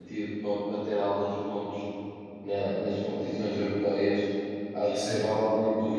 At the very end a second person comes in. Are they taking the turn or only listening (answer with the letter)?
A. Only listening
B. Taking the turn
A